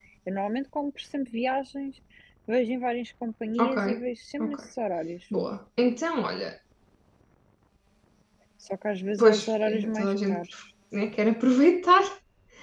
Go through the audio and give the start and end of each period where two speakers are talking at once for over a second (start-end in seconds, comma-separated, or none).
9.2-10.4